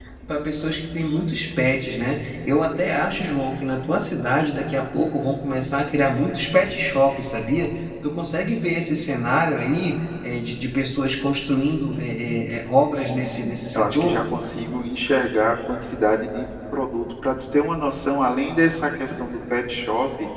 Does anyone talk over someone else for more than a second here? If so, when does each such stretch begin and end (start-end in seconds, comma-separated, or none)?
12.9-14.2